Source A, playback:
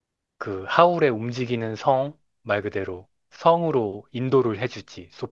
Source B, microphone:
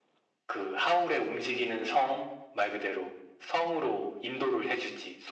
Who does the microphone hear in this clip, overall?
echo only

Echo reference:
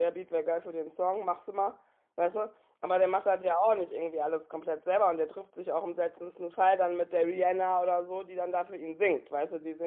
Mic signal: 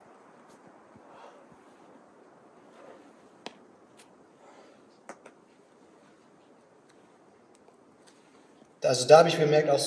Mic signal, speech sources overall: user only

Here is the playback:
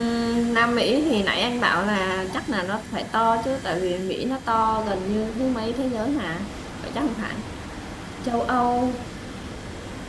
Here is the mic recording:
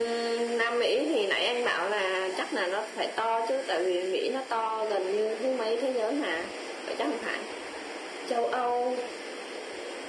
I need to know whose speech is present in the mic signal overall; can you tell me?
echo only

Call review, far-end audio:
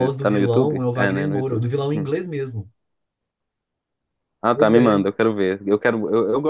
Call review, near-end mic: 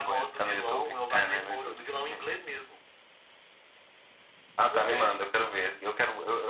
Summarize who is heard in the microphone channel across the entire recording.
echo only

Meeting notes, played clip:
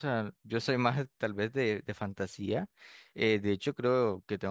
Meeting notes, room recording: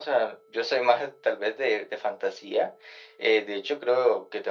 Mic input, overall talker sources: echo only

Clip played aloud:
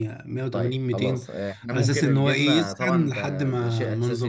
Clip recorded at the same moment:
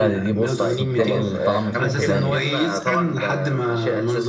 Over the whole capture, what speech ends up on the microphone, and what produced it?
both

